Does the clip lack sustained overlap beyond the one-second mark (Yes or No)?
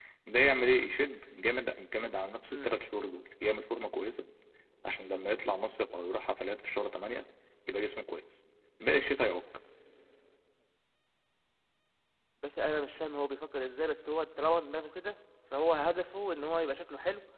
Yes